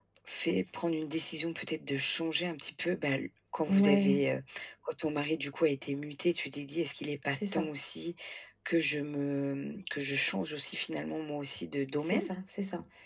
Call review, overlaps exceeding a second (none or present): none